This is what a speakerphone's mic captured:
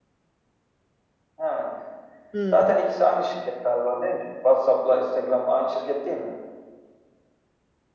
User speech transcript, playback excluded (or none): Hmm,